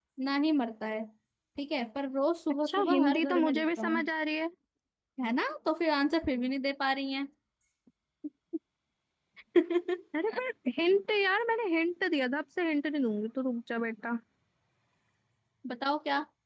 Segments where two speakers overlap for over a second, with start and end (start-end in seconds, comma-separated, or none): 2.7-4.1